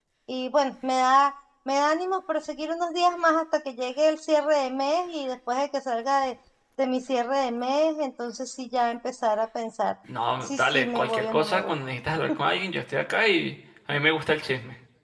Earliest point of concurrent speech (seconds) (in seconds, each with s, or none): 10.4 s